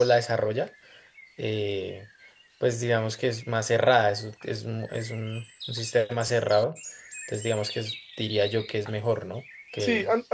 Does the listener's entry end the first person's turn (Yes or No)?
Yes